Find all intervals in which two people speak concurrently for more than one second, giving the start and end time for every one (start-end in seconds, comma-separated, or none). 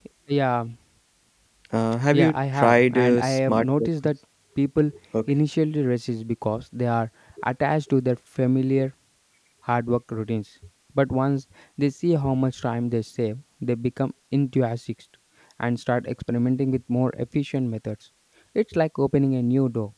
2.1-3.9